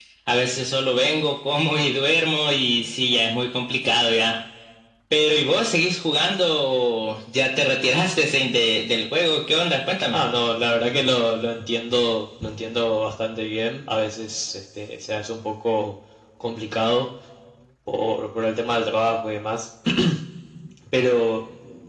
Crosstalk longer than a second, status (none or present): none